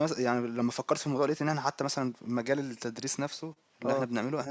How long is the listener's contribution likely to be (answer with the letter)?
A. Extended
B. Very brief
B